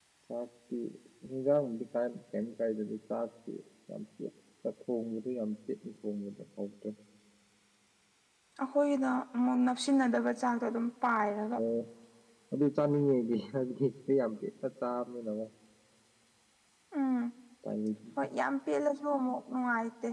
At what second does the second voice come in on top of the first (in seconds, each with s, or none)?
none